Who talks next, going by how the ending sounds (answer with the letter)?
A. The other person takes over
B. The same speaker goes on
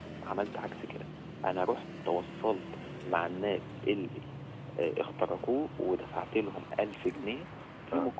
B